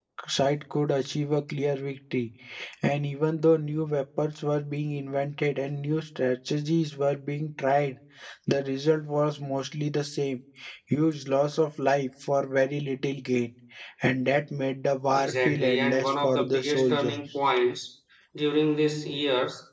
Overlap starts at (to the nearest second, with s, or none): 15 s